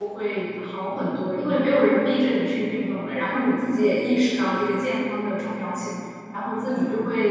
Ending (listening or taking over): listening